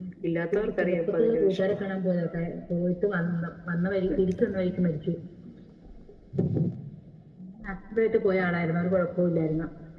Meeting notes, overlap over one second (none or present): present